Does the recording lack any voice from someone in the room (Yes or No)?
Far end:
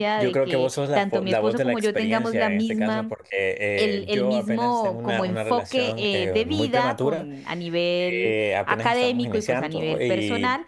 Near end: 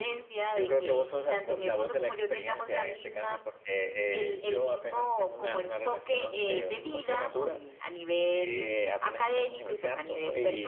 Yes